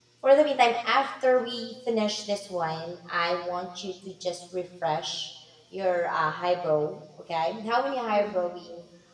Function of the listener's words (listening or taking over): listening